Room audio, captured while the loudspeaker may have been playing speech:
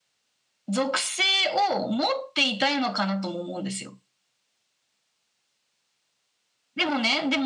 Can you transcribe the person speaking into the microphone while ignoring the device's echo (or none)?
none